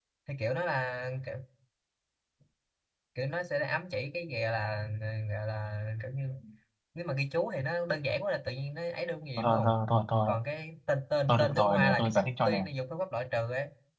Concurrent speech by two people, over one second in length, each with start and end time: 11.3-12.6

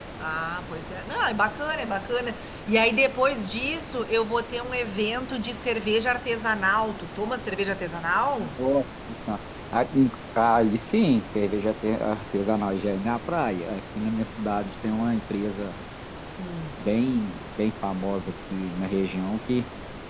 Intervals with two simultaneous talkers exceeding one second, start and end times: none

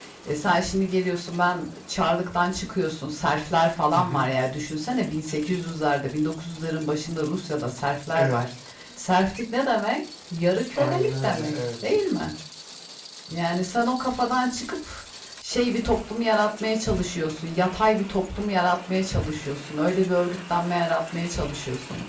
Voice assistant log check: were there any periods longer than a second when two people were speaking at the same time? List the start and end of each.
10.8-11.9

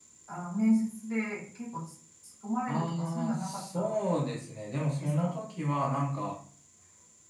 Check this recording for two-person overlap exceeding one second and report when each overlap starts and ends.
2.7-4.0

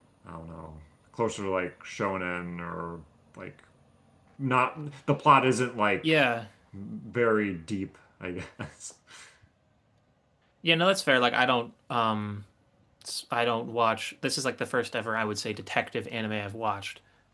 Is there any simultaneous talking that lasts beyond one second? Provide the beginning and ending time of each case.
none

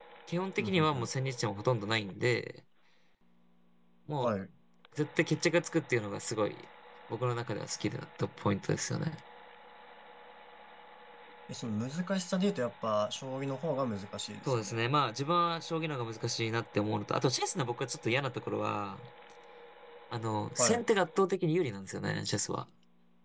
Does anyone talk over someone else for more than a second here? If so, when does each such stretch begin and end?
none

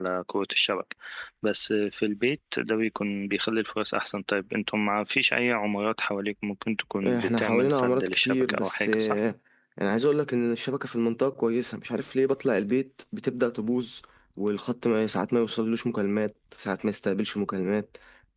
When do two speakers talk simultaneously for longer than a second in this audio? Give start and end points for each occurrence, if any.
7.1-9.2

